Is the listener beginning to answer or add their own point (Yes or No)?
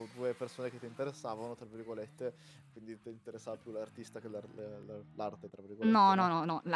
Yes